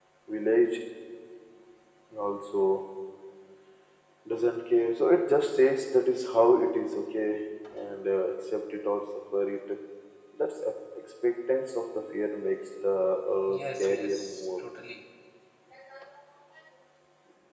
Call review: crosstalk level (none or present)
present